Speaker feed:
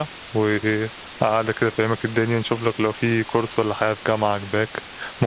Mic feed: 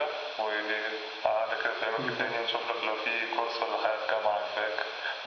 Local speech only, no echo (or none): بالظبط